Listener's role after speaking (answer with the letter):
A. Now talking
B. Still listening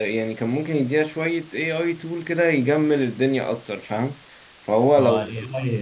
A